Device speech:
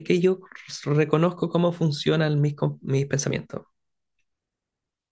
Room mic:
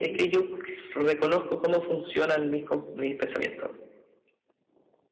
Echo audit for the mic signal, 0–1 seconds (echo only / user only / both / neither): echo only